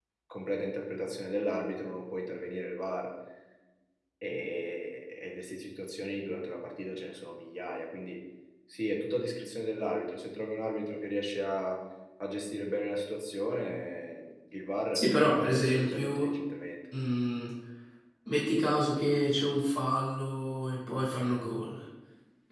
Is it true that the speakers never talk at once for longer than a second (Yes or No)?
No